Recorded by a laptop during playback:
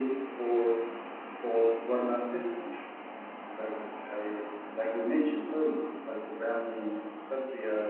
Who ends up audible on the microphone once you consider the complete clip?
echo only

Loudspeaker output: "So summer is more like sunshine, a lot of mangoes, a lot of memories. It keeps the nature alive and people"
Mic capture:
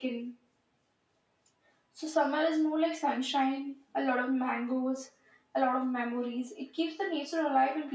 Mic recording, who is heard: echo only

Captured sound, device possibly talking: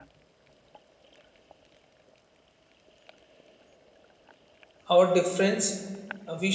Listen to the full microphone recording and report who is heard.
user only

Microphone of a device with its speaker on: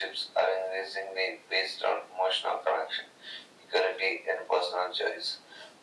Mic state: echo only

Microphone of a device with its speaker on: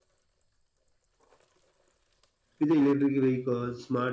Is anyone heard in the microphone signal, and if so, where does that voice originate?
user only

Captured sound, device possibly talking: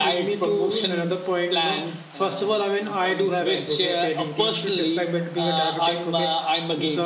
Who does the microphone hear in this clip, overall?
both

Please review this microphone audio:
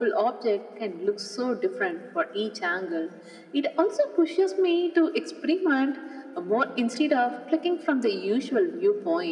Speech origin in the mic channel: echo only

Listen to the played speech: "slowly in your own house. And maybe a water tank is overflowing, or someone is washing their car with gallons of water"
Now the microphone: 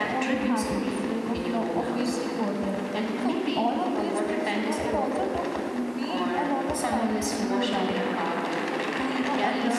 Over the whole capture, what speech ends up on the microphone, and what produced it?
both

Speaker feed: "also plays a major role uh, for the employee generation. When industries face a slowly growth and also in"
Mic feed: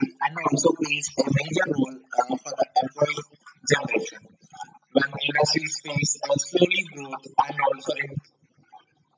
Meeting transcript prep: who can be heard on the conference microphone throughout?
echo only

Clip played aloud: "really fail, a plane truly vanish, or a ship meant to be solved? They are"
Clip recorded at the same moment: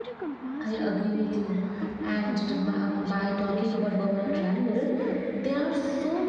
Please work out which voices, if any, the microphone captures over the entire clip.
both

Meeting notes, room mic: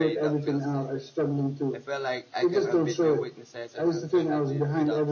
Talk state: both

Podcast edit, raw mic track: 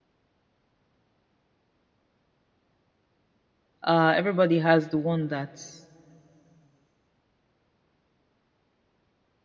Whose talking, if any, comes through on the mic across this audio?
user only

